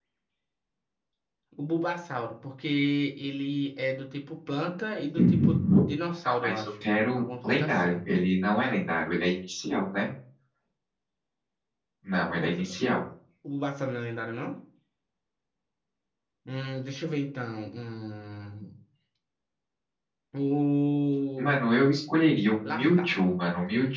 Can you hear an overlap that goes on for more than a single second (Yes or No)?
Yes